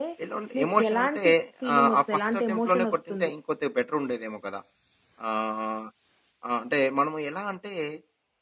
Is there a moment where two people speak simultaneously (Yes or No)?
Yes